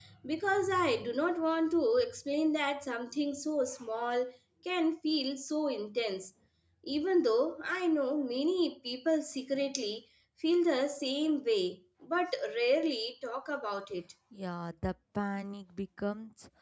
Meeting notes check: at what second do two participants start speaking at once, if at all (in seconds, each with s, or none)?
none